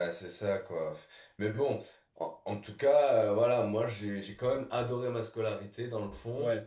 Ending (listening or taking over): listening